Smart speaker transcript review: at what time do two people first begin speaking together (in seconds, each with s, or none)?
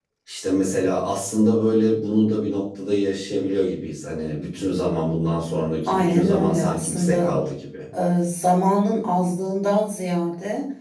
5.9 s